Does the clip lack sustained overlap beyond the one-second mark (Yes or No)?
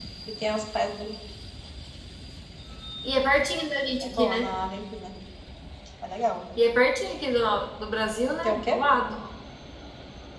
Yes